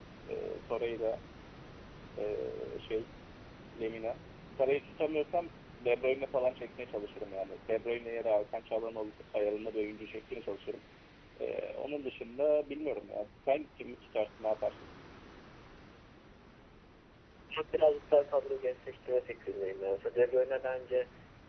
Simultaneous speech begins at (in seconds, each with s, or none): none